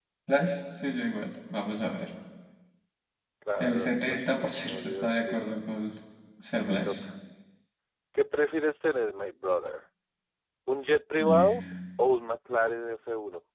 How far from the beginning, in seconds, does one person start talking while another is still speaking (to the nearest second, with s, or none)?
4 s